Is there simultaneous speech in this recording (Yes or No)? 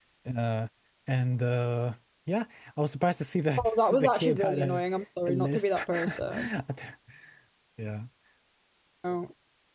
Yes